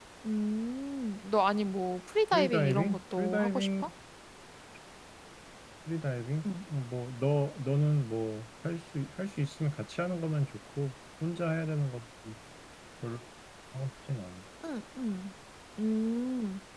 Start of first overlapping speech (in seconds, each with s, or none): 2.3 s